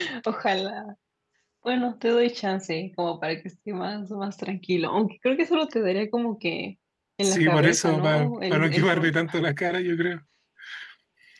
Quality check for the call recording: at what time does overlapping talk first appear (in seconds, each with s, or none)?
7.2 s